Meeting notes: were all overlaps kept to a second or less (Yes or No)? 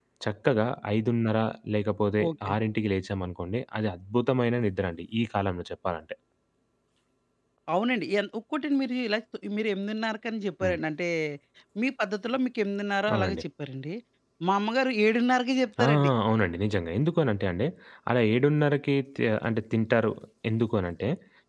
Yes